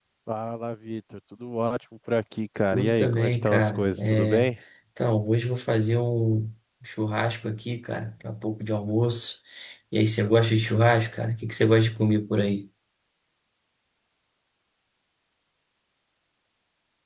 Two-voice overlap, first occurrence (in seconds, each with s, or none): 2.7 s